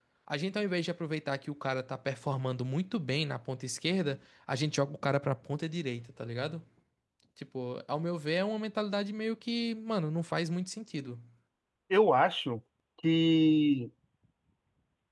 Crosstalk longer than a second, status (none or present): none